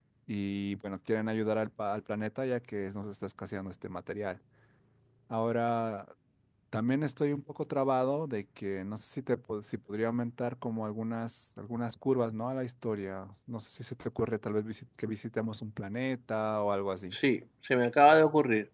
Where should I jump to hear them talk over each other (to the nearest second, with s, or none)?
none